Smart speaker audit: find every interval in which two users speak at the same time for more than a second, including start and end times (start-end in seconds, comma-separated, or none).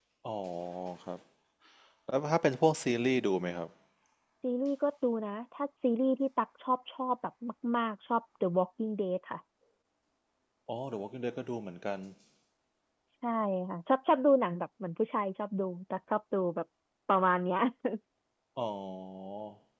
none